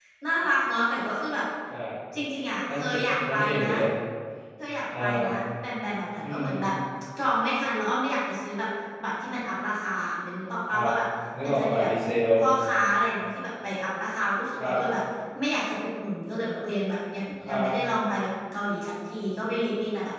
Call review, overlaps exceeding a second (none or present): none